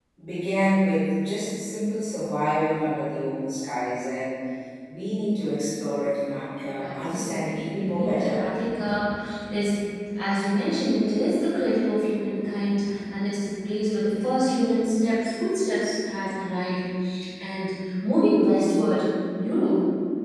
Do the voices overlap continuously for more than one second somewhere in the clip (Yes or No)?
Yes